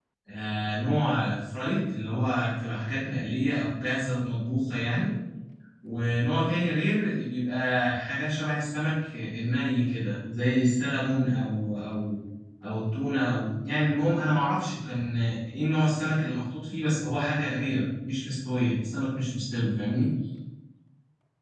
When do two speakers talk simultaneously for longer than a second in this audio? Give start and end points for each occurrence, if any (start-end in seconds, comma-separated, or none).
none